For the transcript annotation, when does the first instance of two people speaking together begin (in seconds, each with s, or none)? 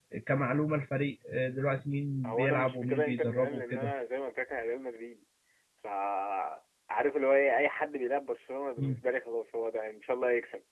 2.2 s